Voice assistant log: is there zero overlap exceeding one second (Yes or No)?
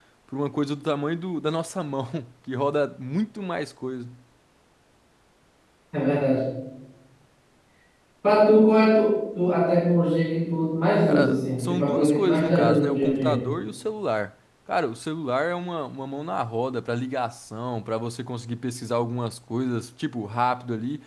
No